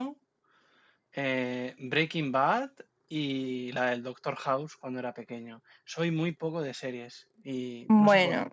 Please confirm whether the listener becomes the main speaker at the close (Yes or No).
No